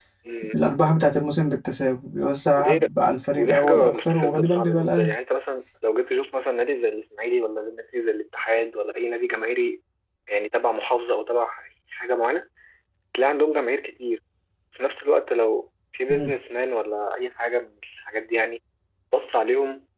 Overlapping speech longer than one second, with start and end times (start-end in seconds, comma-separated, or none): 3.4-5.1